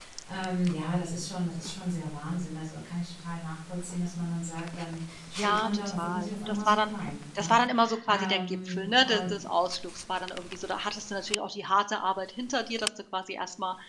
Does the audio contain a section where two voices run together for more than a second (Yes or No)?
Yes